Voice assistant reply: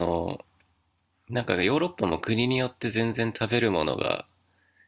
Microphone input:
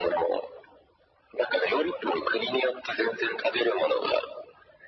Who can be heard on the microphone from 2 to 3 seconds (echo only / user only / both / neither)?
echo only